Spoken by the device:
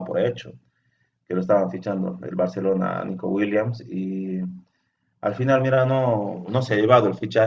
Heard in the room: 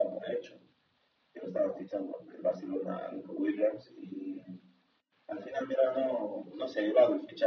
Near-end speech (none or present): none